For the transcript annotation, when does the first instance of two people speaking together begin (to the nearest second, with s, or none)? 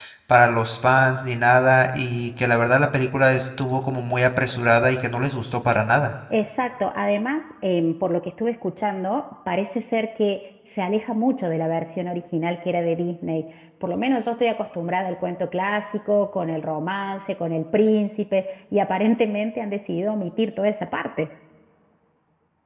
none